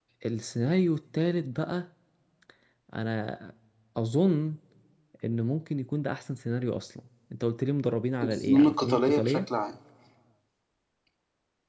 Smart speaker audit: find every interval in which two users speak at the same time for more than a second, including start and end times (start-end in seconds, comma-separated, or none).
8.2-9.4